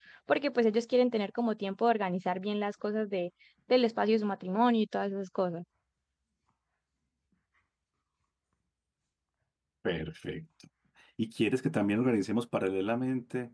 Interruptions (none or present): none